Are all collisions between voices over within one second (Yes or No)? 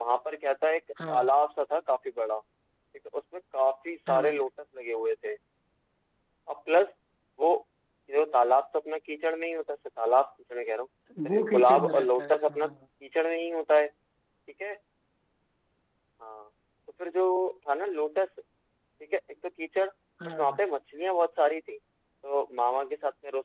No